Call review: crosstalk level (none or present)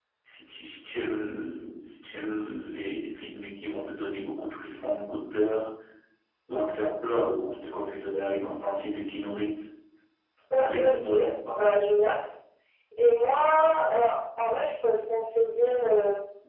present